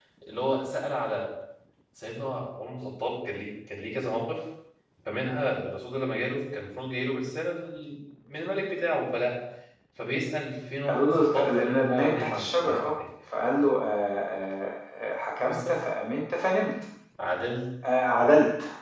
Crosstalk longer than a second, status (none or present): present